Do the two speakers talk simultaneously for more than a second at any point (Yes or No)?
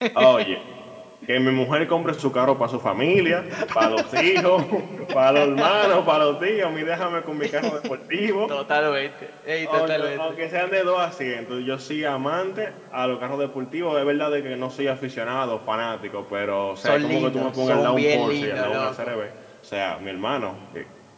Yes